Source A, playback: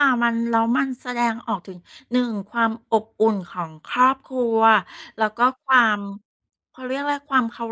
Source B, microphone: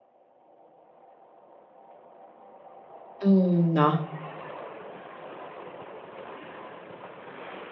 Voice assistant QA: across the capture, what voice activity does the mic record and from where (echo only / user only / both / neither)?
user only